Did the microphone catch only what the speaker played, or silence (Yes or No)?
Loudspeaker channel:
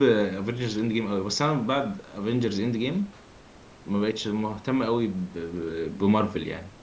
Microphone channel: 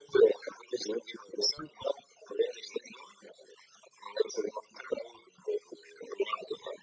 Yes